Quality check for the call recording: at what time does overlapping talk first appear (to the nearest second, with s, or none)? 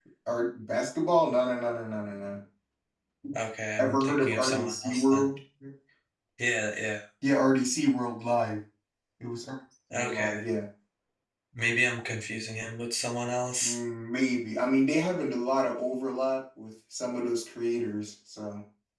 4 s